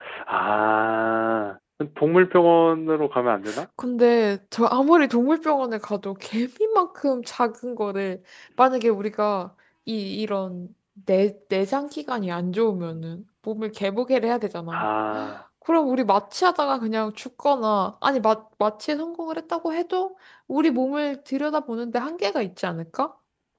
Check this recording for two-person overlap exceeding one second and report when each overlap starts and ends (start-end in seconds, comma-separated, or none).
none